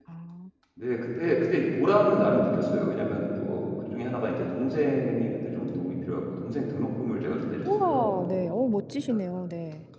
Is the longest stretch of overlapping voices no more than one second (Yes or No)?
Yes